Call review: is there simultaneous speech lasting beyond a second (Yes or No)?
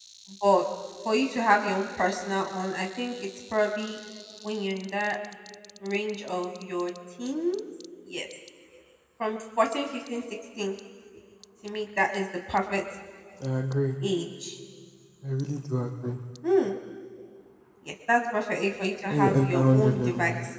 Yes